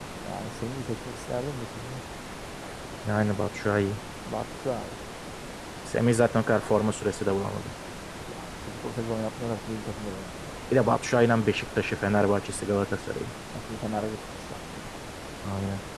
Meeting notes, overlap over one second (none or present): none